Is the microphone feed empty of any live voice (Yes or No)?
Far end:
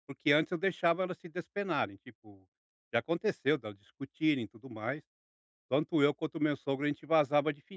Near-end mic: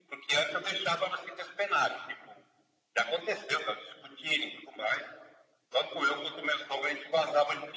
Yes